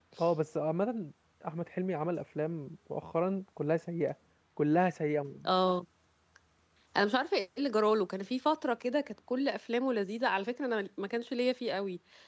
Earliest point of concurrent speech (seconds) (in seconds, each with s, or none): none